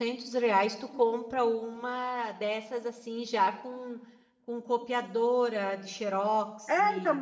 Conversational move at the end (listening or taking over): taking over